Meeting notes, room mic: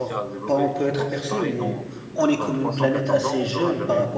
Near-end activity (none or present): present